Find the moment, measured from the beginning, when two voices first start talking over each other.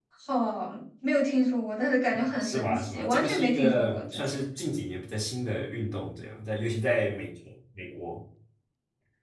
2.4 s

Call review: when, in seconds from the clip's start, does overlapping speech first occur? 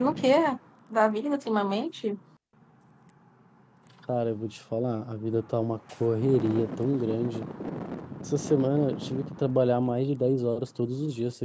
none

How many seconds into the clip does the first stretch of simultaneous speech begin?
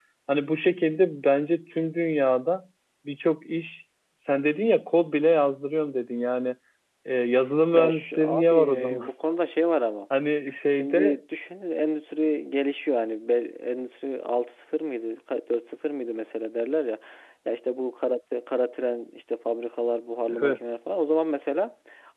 7.7 s

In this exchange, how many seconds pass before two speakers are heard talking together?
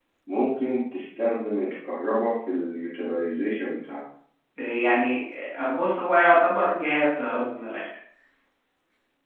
none

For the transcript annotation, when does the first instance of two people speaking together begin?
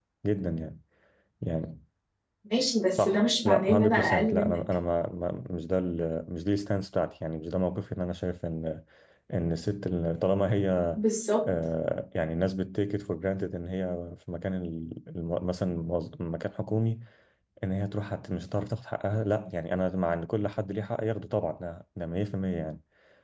3.0 s

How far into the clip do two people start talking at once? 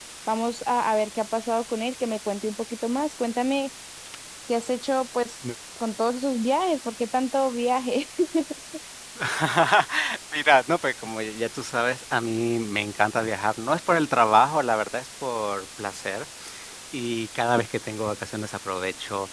none

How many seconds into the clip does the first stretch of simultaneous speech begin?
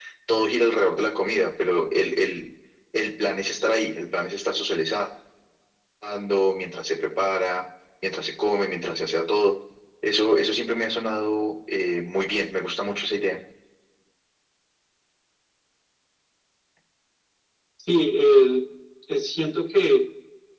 none

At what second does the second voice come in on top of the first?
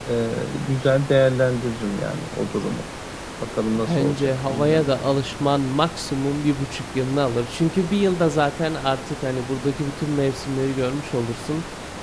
3.7 s

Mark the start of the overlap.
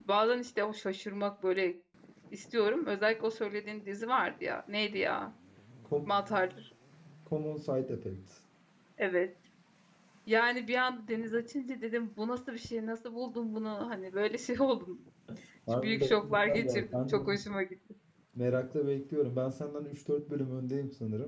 15.8 s

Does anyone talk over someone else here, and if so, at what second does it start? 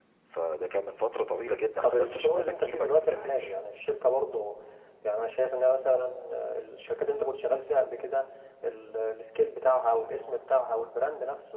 1.8 s

